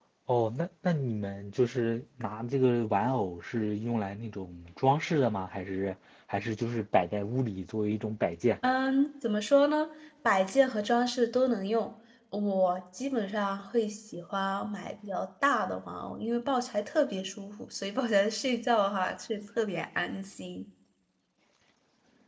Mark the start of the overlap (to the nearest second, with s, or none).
none